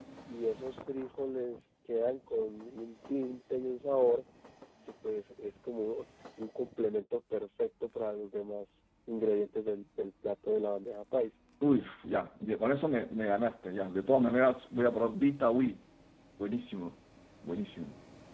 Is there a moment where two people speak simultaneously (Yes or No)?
No